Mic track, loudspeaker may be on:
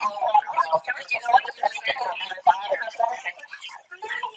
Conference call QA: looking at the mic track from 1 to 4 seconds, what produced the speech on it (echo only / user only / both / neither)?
echo only